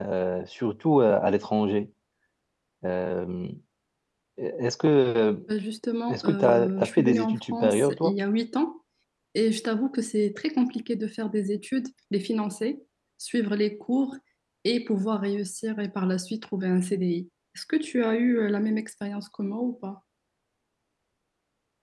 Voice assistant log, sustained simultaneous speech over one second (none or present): present